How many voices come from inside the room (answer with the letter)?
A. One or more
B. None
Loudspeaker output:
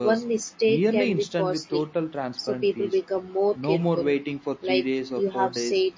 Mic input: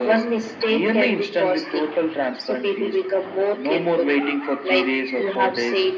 B